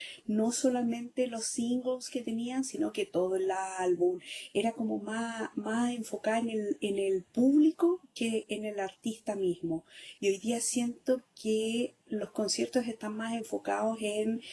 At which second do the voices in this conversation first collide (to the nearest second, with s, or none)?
none